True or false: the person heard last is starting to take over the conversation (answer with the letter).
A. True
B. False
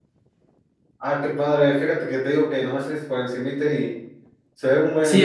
A